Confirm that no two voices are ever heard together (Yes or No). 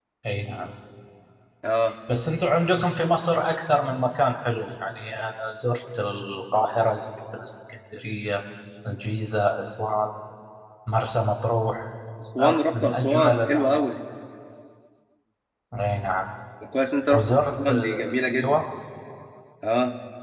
No